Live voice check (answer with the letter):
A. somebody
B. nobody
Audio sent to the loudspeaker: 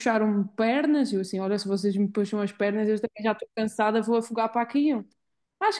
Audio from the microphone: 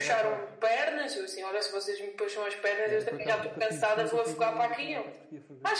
A